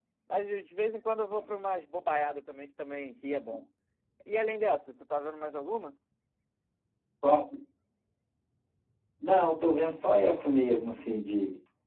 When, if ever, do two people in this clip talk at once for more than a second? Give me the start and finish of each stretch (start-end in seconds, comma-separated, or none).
none